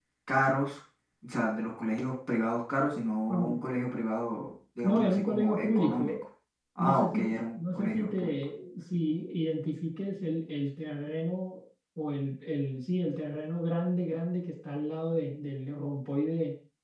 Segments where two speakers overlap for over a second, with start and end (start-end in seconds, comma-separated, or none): 4.8-6.2, 6.8-8.4